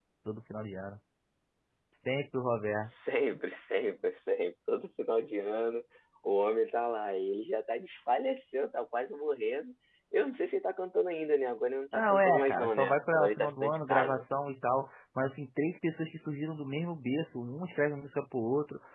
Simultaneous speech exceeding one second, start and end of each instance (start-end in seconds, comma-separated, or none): 11.9-14.2